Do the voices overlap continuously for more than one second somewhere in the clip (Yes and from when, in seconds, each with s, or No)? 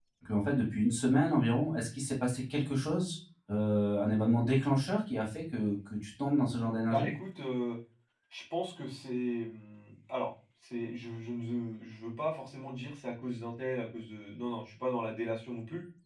No